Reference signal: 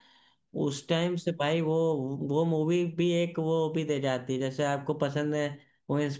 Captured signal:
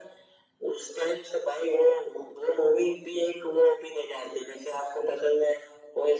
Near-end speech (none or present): none